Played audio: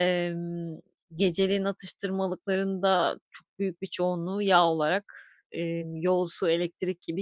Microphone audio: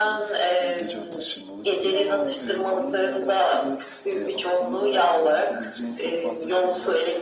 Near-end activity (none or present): present